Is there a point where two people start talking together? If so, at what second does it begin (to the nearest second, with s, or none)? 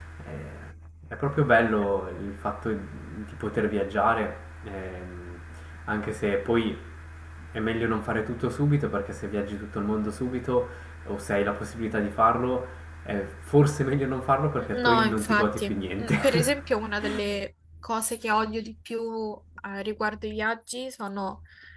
15 s